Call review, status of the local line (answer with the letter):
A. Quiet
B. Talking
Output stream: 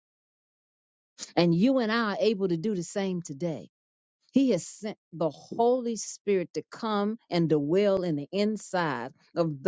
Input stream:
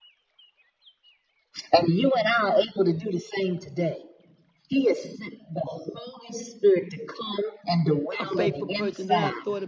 B